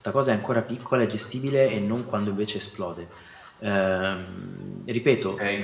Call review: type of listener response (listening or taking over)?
listening